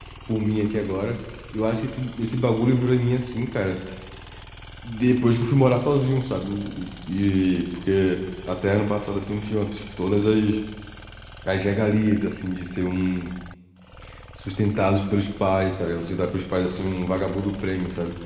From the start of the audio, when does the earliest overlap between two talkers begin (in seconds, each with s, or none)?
none